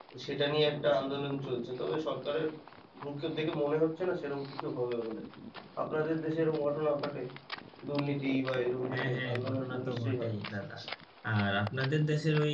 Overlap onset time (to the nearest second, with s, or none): 9 s